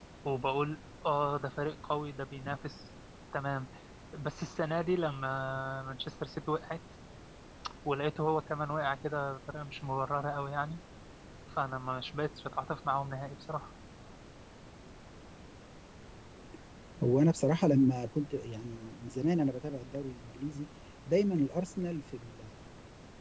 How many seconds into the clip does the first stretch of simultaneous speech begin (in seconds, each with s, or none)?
none